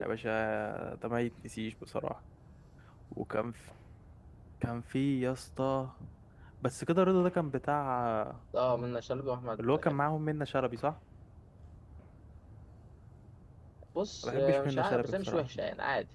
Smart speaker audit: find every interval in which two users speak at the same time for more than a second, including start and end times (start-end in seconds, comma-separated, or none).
14.2-15.4